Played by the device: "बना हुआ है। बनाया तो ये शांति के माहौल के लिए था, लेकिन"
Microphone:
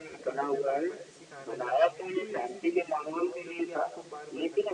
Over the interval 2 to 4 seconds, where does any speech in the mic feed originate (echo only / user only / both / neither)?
both